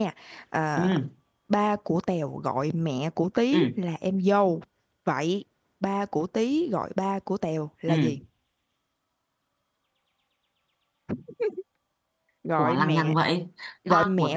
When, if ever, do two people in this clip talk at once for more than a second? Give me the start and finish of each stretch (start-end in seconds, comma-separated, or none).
none